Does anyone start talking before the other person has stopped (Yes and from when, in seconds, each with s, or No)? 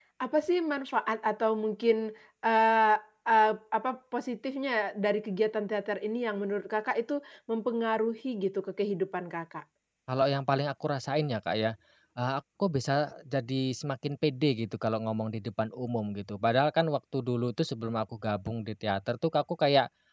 No